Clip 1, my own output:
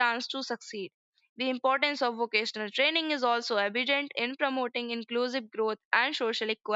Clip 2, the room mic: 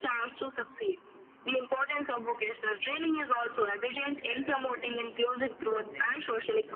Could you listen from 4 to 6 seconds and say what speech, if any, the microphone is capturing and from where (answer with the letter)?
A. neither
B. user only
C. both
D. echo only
C